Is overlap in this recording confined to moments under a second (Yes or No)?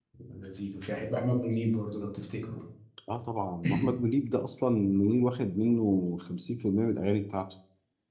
Yes